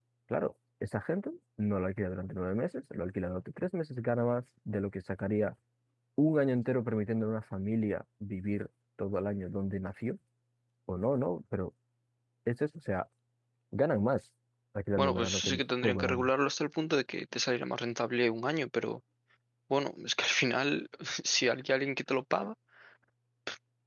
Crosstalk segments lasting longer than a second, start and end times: 15.0-16.3

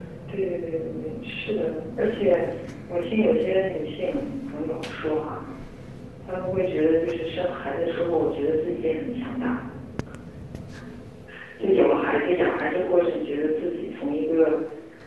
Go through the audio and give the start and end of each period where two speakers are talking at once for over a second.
11.6-12.9

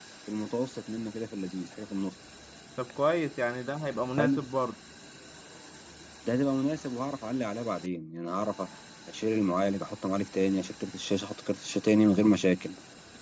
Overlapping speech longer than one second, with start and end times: none

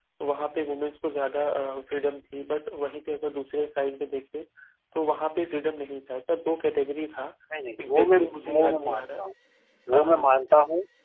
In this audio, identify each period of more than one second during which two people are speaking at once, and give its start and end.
7.9-9.2

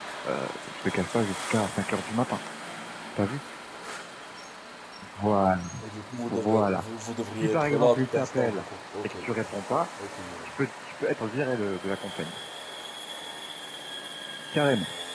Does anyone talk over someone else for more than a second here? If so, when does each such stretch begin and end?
7.3-8.6

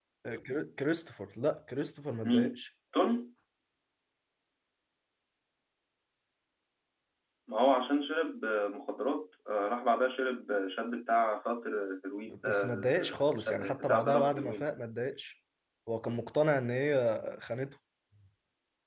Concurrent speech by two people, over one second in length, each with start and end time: 12.3-14.6

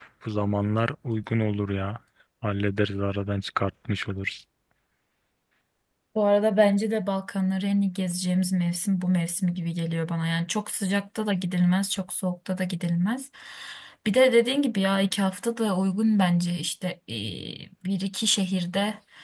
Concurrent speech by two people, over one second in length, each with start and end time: none

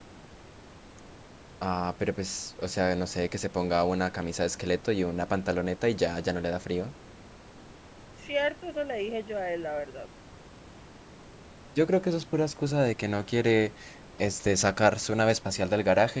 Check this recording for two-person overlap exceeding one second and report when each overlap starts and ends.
none

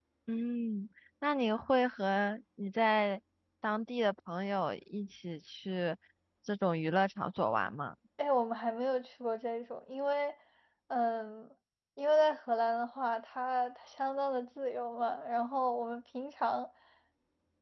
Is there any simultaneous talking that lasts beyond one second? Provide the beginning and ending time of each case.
none

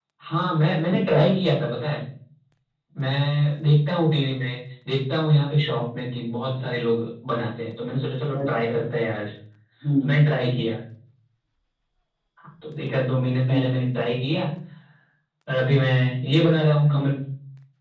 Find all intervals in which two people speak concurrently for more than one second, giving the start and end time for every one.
none

